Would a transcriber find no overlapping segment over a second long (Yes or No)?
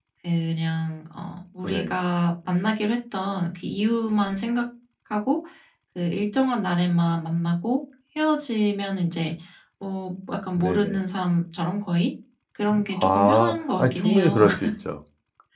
No